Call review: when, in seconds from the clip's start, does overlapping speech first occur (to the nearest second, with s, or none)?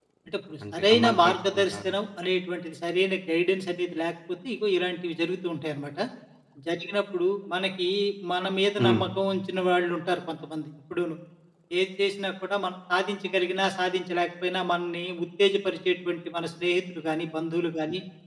1 s